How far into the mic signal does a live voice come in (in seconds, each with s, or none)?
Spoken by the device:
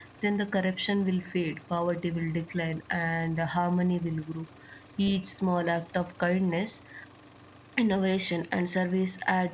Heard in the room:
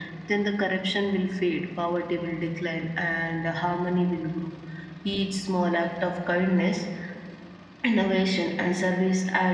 none